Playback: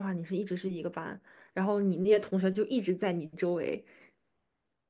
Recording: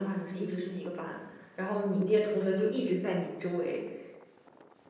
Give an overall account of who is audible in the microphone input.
echo only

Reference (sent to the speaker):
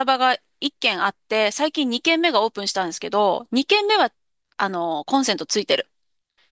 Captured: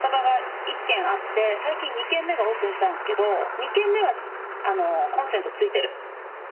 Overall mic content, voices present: echo only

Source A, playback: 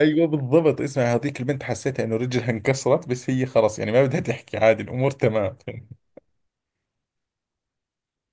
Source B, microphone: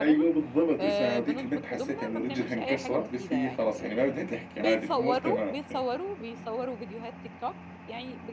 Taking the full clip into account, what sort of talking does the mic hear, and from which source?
both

